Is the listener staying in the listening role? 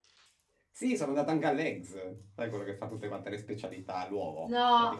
Yes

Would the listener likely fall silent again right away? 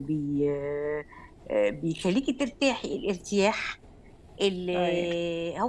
Yes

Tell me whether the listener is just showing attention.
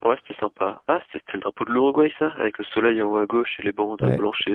No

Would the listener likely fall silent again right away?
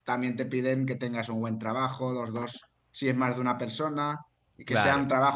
Yes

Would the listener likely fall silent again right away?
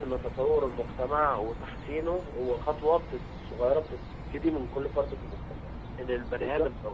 Yes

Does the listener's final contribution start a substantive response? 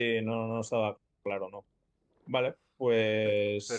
Yes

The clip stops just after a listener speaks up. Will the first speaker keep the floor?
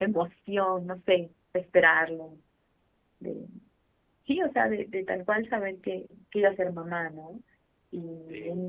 Yes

